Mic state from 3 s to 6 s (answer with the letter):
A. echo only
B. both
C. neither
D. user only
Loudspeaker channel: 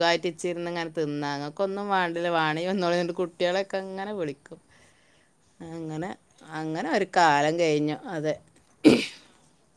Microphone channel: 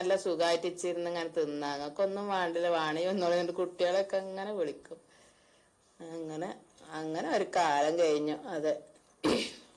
A